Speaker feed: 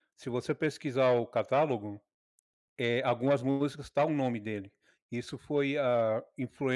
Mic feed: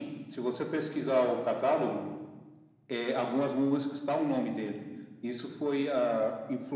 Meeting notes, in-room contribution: none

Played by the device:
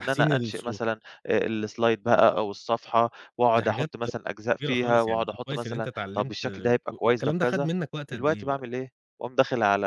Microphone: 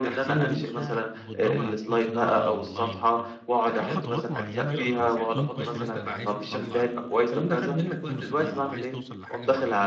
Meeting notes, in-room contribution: present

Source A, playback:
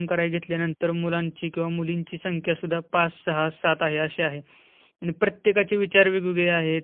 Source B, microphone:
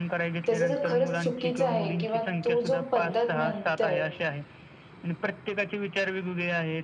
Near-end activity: present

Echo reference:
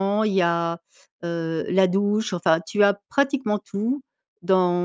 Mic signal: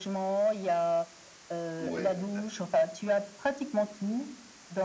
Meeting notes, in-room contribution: present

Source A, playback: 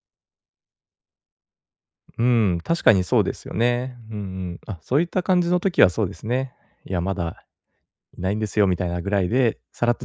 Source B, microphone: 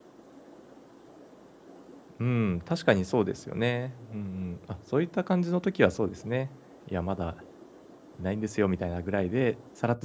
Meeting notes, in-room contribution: none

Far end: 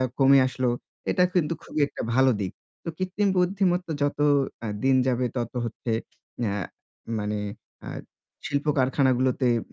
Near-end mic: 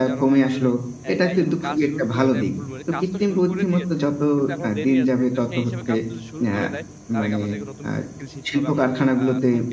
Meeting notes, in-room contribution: present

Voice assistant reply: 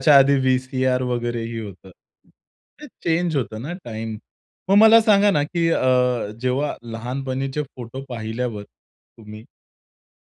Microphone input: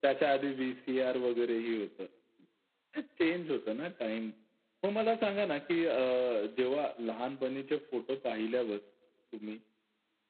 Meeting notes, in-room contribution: none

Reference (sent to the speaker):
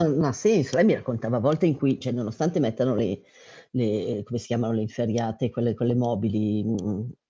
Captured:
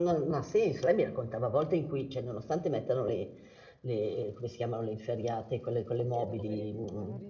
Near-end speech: present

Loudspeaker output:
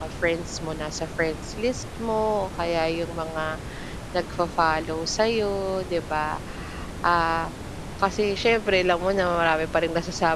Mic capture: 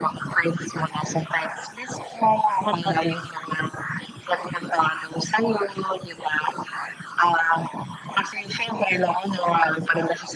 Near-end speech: present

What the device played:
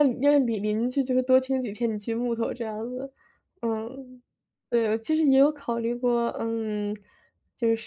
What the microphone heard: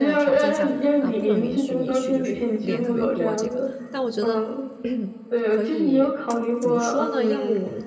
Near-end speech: present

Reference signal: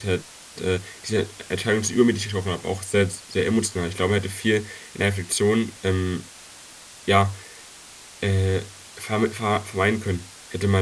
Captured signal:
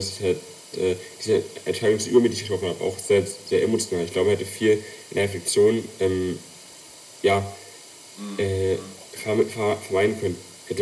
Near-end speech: present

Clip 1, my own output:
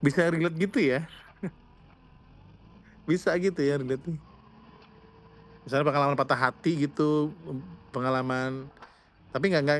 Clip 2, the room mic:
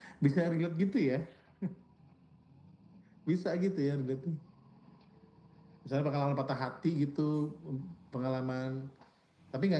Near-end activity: none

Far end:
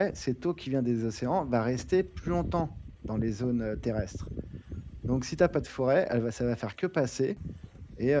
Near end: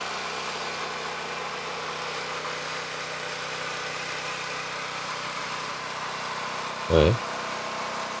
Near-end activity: present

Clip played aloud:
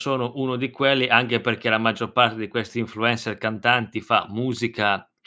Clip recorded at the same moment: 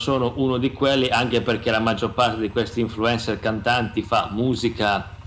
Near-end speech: none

